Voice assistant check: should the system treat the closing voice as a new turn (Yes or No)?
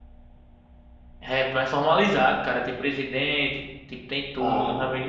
No